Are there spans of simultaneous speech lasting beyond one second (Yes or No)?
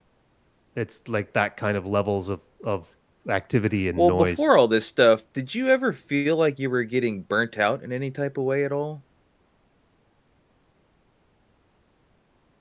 No